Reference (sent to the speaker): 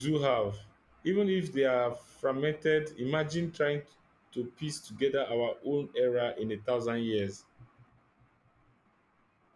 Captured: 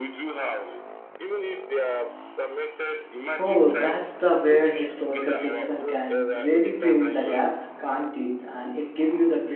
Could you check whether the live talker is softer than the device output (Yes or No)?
No